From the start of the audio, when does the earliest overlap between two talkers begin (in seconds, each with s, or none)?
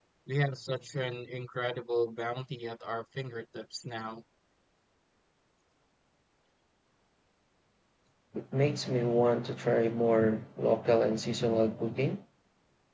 none